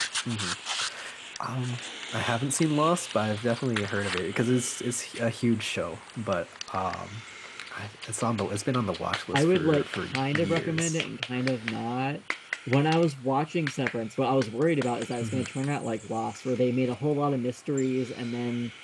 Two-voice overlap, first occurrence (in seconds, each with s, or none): 9.3 s